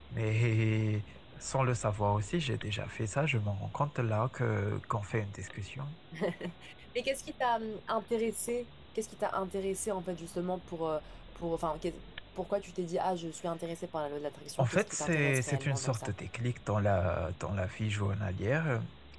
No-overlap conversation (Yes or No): No